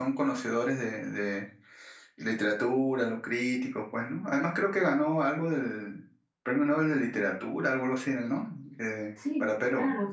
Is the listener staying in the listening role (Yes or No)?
No